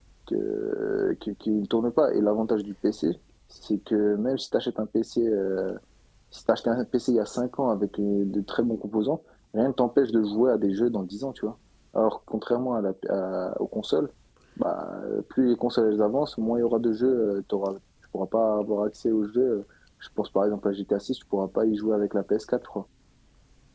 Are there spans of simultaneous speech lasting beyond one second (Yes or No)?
No